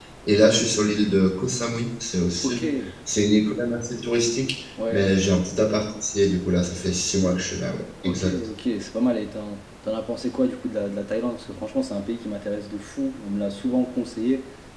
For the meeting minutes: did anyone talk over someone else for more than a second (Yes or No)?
No